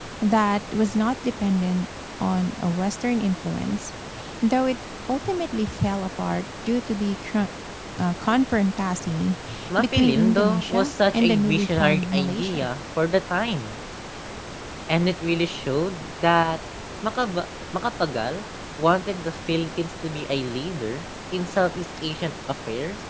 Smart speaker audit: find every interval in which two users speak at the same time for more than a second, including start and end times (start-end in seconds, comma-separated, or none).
9.8-12.6